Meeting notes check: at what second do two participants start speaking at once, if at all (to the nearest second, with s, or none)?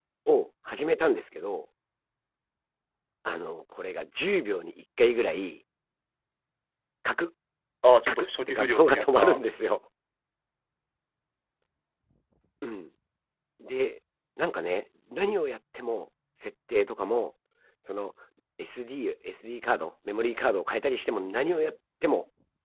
8 s